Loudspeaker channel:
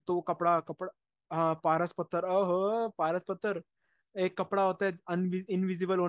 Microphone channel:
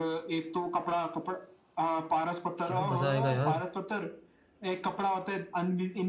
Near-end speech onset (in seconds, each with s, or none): 2.7 s